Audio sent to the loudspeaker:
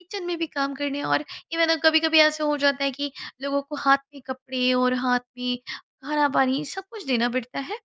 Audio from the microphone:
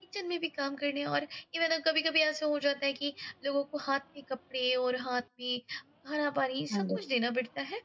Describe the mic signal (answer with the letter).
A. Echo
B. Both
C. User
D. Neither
B